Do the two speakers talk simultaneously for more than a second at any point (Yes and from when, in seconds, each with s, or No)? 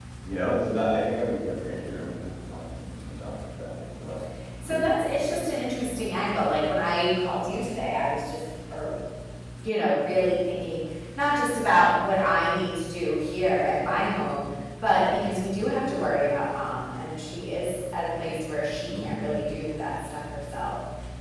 No